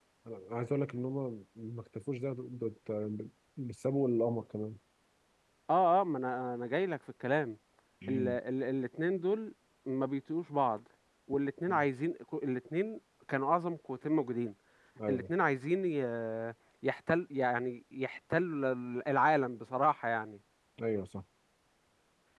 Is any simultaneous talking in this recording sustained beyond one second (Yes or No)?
No